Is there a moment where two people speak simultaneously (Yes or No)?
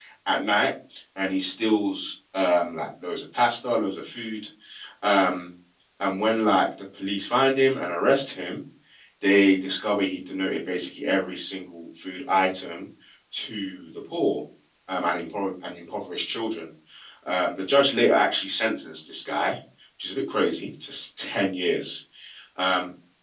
No